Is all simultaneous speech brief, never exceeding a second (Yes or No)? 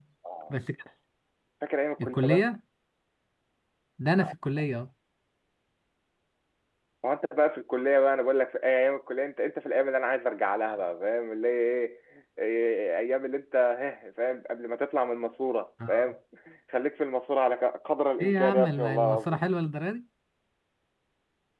No